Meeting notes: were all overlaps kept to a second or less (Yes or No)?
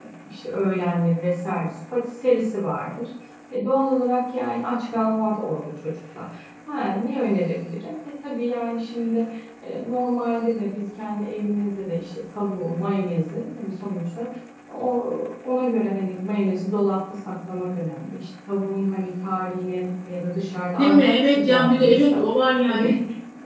No